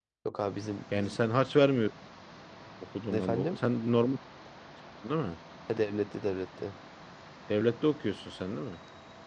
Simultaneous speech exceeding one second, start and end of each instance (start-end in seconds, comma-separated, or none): none